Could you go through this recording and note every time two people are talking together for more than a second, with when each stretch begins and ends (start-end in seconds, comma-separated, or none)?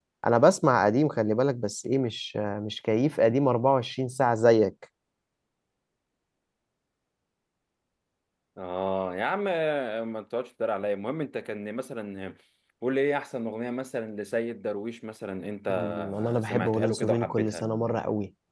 15.7-17.6